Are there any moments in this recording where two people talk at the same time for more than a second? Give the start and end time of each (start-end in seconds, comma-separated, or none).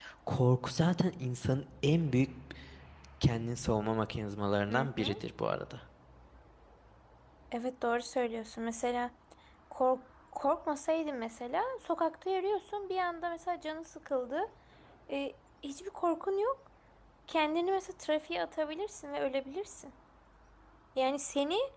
none